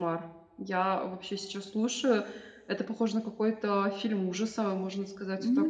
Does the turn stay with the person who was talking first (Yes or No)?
No